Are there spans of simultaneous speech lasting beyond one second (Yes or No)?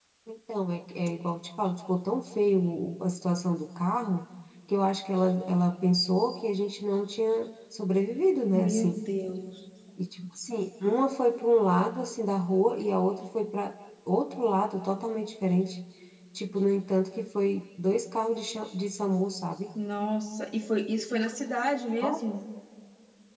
No